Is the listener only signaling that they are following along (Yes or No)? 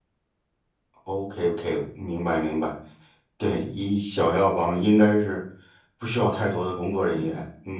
No